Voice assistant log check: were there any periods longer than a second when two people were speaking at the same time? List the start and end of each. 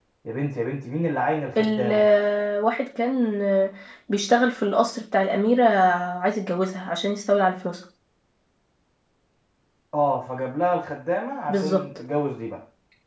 none

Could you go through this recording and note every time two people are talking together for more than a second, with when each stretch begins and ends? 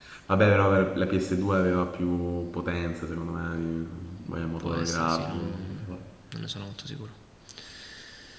4.3-5.9

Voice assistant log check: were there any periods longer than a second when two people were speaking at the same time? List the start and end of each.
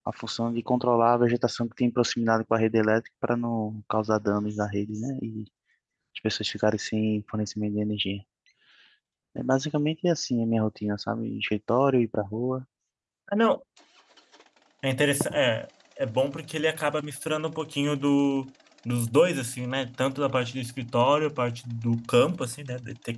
none

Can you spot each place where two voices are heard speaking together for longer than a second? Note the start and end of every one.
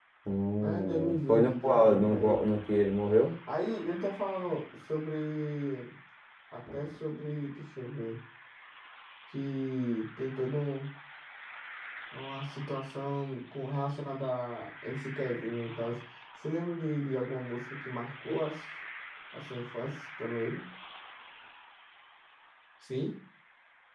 0.6-2.5

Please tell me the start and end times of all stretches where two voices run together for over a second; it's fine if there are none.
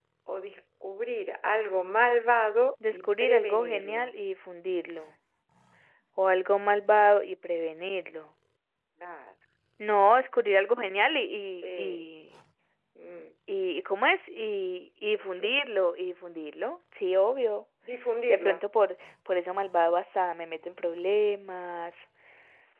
2.9-4.1

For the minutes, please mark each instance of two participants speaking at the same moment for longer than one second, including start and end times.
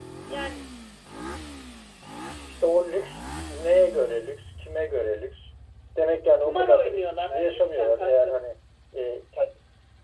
6.4-8.4

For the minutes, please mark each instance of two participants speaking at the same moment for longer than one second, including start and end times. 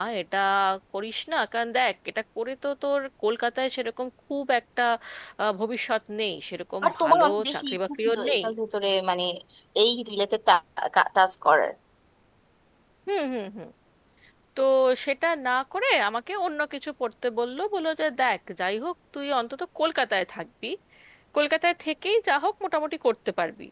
6.8-8.4

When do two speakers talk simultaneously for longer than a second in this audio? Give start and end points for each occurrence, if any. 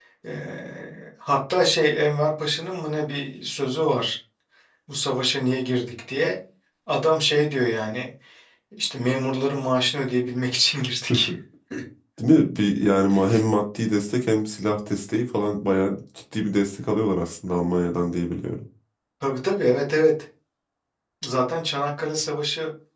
none

